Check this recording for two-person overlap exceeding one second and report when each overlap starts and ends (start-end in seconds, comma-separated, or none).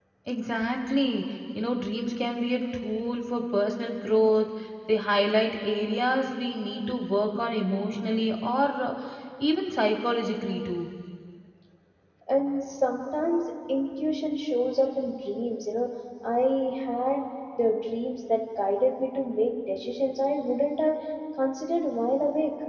none